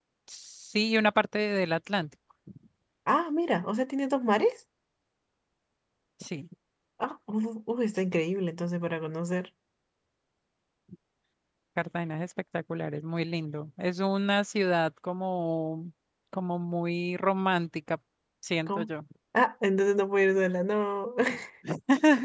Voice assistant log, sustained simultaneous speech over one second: none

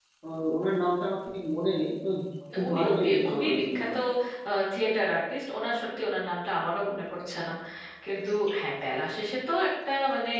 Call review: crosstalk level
present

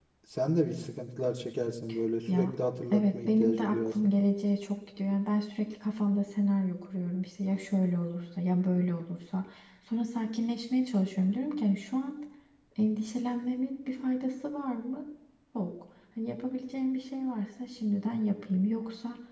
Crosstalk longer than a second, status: present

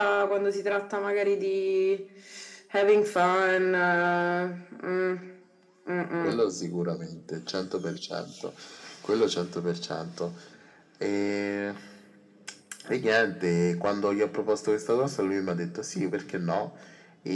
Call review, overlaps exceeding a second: none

